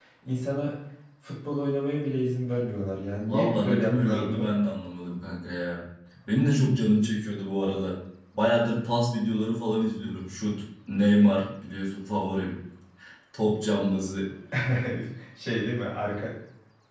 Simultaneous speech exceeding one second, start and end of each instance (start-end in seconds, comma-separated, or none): 3.3-4.5